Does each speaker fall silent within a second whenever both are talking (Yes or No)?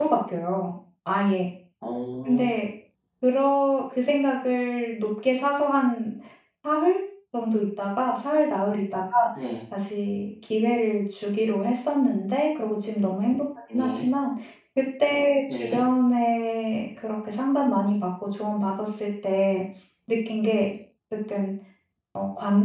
Yes